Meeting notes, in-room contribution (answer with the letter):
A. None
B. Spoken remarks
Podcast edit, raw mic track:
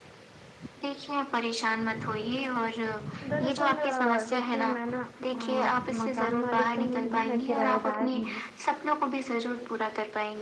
B